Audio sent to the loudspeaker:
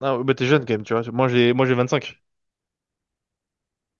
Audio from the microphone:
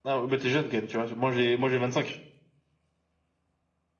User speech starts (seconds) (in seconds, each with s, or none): none